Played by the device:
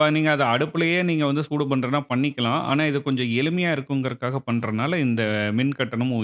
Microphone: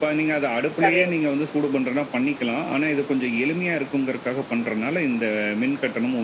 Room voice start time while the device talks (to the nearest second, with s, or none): 1 s